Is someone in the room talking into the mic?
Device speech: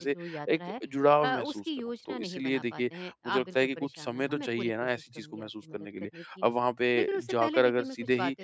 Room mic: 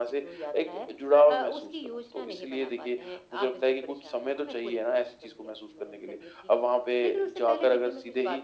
No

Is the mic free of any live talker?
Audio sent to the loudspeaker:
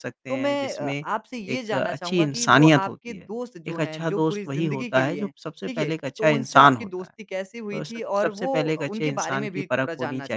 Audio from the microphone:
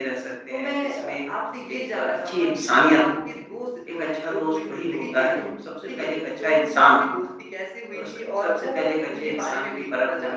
Yes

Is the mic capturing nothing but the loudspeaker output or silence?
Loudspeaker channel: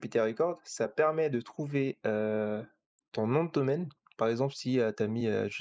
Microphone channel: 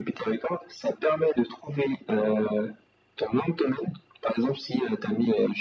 Yes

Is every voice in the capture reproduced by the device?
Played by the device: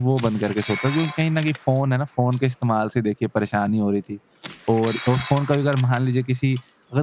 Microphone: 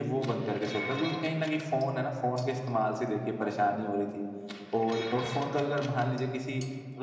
Yes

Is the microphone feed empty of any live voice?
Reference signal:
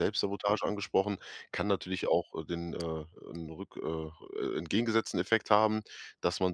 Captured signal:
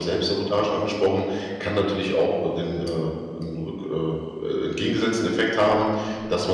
Yes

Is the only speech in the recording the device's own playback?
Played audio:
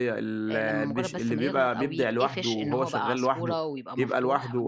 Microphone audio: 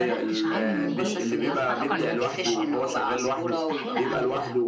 No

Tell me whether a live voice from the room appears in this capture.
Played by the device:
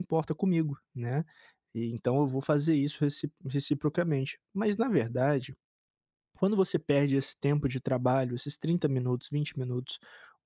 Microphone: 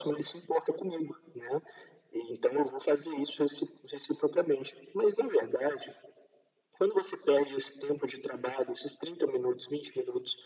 No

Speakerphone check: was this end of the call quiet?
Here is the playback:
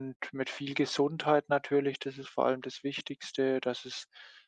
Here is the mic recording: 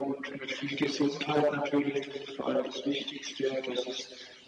Yes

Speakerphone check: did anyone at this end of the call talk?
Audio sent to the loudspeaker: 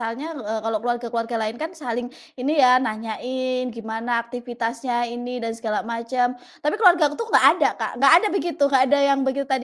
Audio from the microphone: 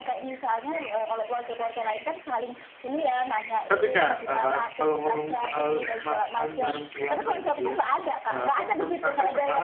Yes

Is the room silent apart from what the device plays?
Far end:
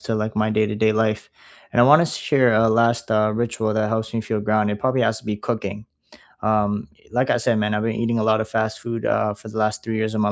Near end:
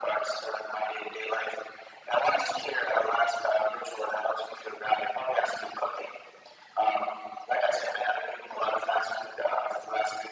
Yes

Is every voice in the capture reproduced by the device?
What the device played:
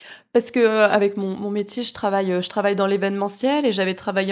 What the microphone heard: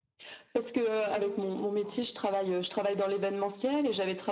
No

